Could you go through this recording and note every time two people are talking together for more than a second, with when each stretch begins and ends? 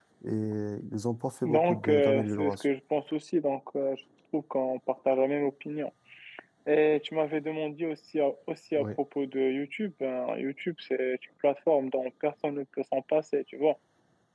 1.4-2.6

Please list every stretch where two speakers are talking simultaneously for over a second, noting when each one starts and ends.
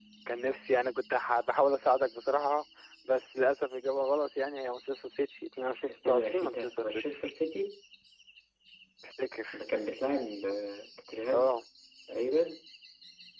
5.9-7.1

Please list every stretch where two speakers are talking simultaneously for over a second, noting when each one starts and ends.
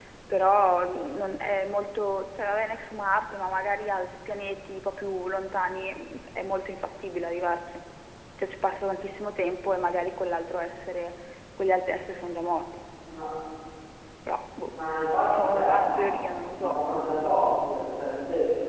15.3-16.8

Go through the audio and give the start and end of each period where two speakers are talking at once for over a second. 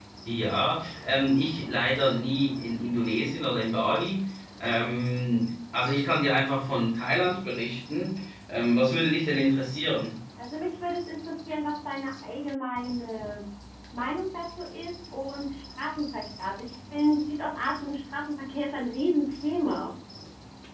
none

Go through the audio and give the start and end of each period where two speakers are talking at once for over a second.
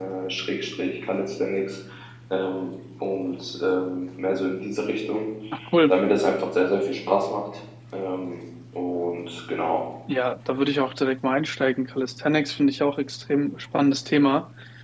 none

